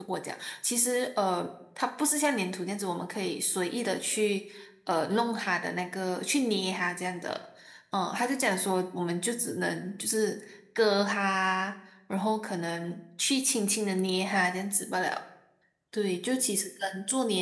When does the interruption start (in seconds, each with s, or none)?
none